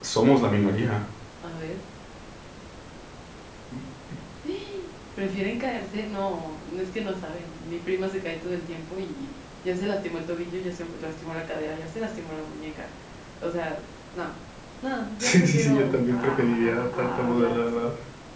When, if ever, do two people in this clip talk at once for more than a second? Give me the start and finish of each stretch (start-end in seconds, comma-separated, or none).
15.2-17.8